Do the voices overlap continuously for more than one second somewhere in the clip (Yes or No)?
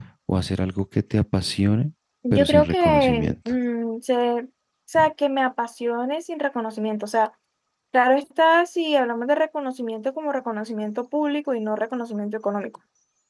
Yes